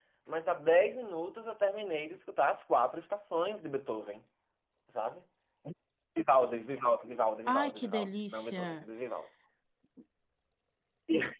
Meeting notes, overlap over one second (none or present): present